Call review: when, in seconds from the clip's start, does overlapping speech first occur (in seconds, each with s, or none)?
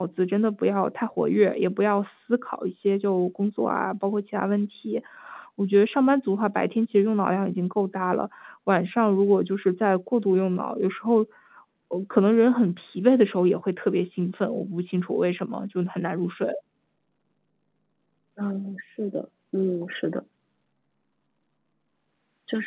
none